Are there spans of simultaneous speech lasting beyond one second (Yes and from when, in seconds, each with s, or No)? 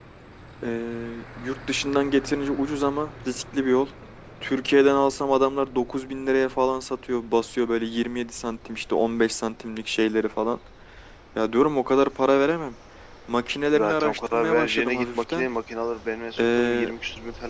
Yes, from 13.7 s